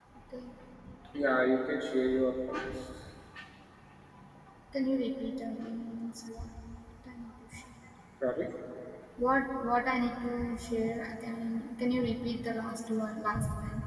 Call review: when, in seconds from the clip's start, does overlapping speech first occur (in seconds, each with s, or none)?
none